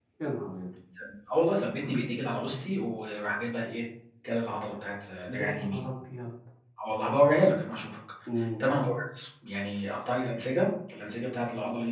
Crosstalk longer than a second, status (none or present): none